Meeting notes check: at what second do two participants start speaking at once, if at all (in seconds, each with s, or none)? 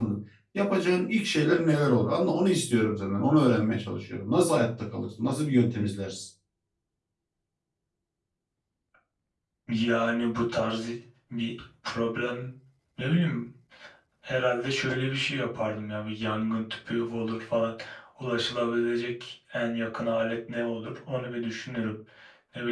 none